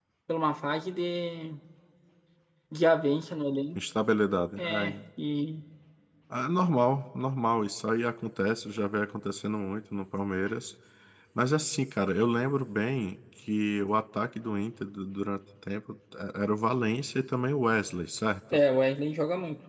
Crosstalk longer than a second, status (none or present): none